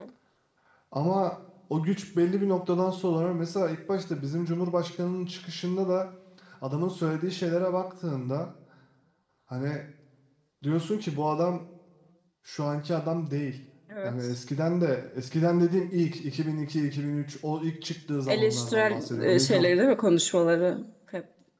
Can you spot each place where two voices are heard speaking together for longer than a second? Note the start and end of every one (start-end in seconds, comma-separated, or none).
18.3-19.6